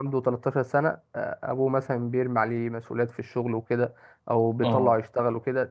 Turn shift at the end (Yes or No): No